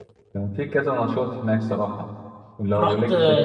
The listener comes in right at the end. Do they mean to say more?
Yes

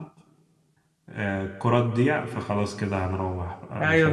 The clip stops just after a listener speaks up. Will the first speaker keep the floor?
No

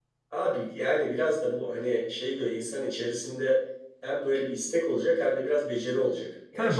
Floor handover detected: Yes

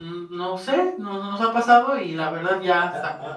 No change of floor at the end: No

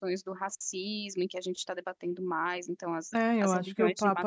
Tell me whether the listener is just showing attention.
No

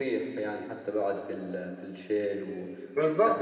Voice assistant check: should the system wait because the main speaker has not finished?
No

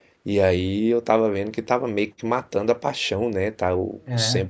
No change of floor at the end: Yes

